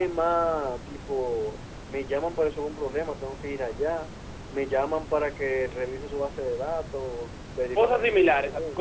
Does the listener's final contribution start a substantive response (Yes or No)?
Yes